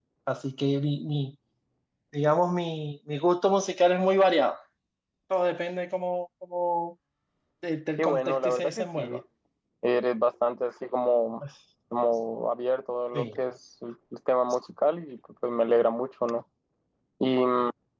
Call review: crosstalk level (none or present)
present